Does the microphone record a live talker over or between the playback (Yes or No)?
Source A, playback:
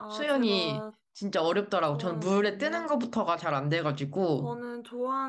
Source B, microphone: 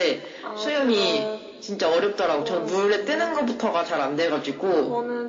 No